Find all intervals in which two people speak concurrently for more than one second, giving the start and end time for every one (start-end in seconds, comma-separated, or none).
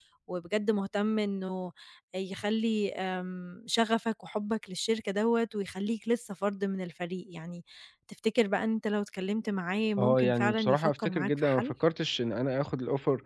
10.0-11.7